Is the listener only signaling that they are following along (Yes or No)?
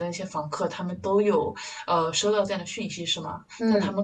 Yes